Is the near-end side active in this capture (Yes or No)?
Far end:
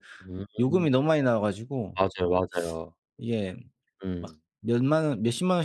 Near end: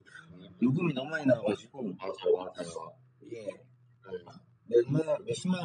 No